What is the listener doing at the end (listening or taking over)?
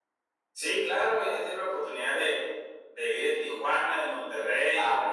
taking over